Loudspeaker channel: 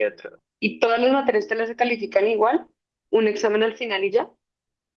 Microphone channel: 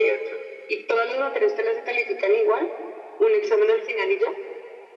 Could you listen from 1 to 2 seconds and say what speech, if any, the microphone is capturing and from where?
echo only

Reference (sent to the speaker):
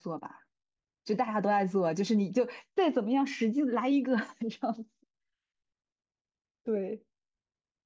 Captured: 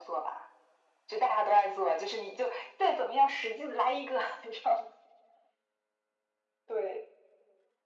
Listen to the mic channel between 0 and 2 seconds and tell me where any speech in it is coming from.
echo only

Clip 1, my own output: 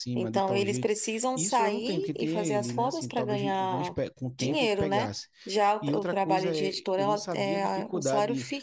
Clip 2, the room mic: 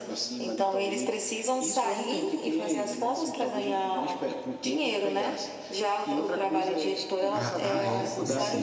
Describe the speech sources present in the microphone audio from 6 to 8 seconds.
both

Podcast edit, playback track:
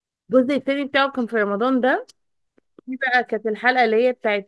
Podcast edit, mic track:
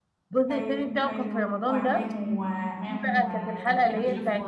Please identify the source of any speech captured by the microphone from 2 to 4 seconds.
both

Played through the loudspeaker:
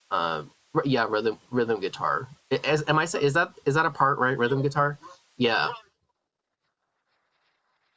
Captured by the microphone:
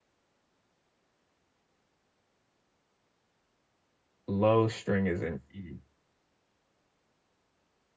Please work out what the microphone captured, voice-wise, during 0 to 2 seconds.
neither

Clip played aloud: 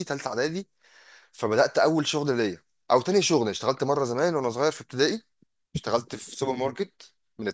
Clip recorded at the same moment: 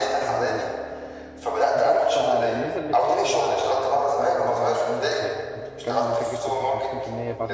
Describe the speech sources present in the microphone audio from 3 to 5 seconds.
both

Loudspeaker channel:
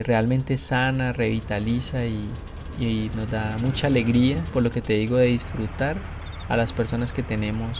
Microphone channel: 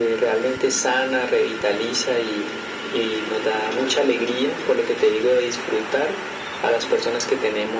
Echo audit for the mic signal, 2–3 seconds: echo only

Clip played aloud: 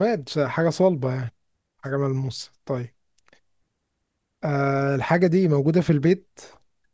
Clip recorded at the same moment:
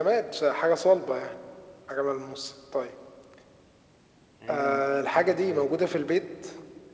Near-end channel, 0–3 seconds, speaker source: echo only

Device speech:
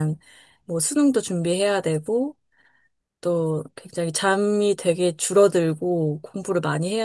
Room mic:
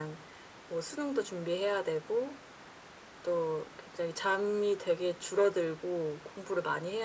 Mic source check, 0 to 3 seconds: echo only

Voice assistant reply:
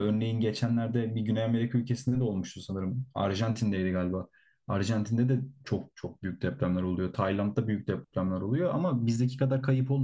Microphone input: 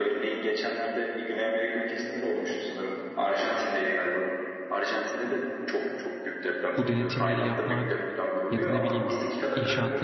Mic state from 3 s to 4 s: echo only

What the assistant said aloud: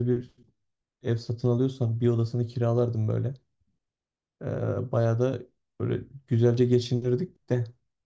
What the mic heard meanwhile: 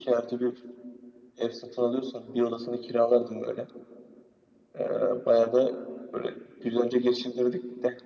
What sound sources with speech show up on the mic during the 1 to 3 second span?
echo only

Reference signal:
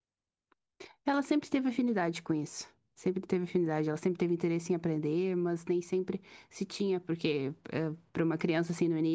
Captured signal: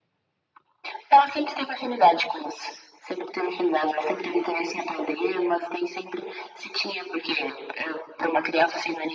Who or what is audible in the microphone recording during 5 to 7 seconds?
echo only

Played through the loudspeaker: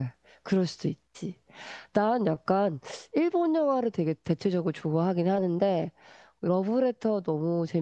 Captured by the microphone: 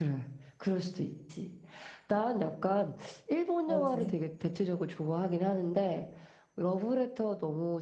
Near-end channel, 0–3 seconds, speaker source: echo only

